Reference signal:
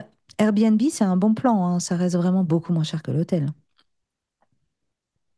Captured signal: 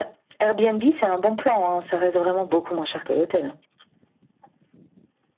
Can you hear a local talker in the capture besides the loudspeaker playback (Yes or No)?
No